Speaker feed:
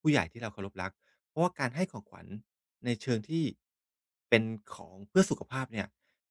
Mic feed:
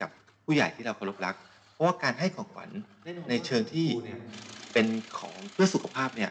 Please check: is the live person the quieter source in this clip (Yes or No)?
Yes